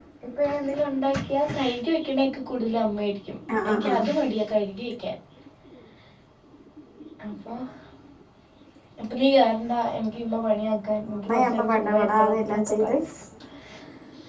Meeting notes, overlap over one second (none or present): present